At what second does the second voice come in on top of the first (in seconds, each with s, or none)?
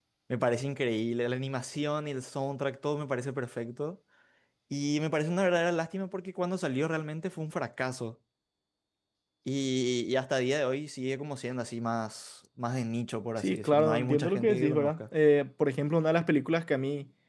13.4 s